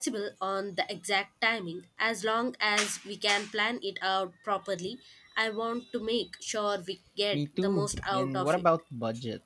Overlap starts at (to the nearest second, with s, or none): 7 s